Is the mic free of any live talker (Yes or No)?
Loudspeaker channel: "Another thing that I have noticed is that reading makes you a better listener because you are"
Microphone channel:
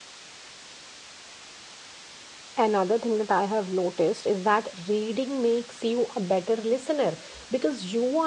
Yes